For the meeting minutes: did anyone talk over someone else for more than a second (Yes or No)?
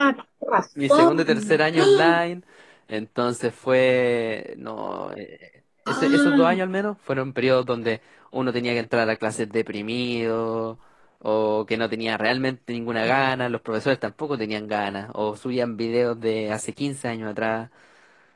Yes